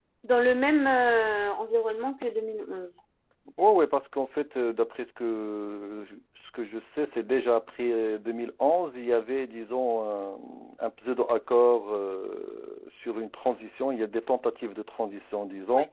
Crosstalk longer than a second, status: none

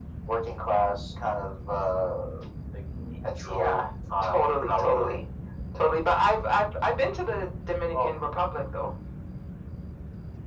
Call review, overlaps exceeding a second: present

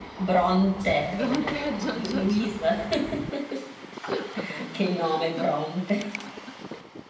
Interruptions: present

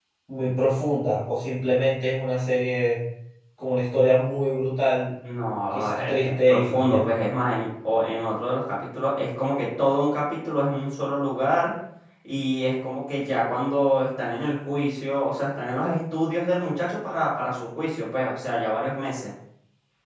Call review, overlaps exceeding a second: present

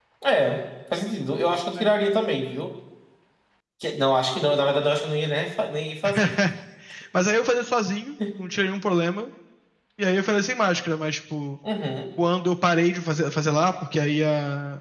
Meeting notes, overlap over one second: none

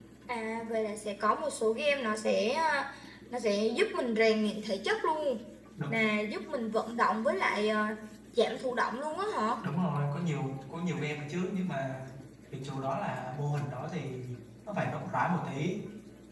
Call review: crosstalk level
none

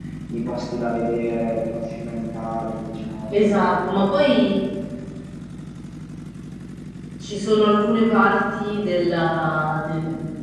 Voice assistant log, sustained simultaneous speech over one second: none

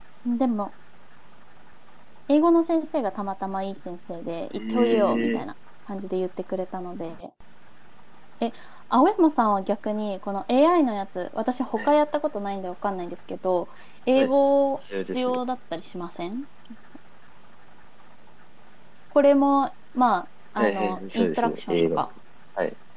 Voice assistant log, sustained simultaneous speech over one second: present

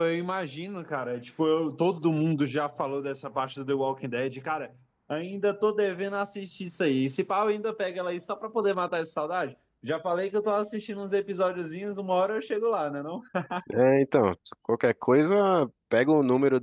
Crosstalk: none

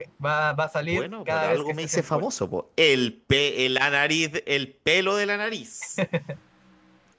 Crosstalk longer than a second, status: present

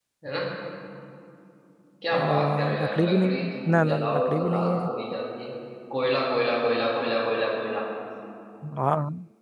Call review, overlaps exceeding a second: present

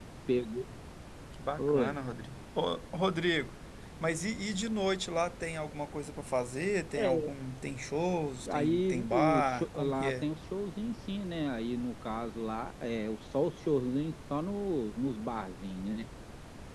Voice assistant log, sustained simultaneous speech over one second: present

